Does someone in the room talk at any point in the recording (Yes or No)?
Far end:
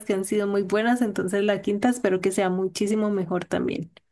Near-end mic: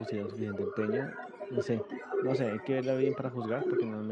Yes